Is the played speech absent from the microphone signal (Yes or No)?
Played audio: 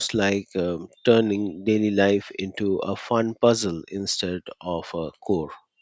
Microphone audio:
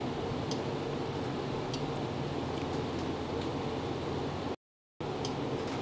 Yes